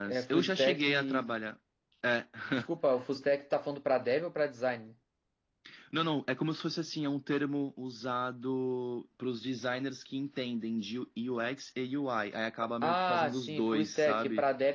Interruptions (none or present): present